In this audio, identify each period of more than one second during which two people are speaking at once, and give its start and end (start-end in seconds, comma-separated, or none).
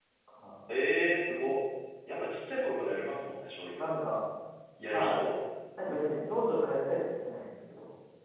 none